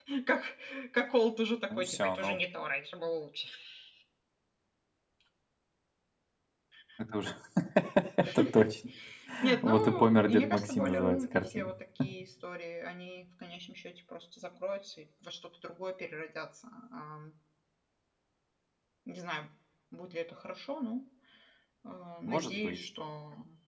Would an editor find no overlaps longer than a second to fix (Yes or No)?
No